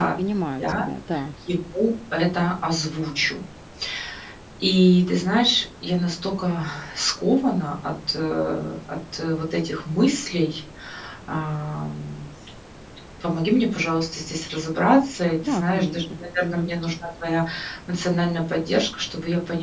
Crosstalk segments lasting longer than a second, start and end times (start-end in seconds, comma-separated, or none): 15.4-16.7